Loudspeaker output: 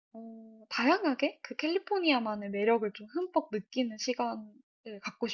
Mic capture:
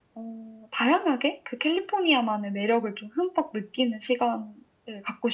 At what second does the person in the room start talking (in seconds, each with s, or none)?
none